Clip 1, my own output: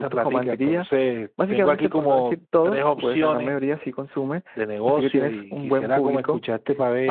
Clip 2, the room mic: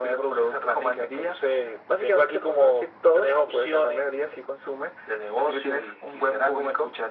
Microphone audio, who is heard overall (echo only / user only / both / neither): echo only